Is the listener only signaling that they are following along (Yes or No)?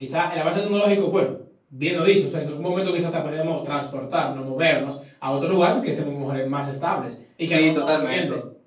No